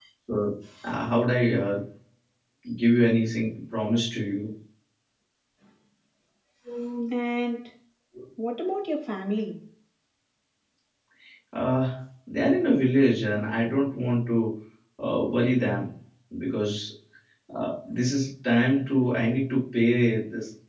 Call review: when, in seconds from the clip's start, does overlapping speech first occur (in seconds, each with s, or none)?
none